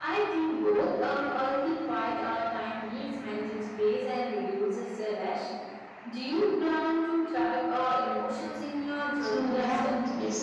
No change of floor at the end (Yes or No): No